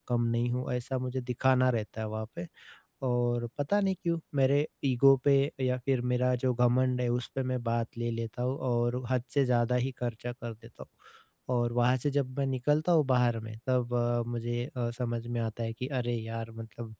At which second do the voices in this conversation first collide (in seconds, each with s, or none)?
none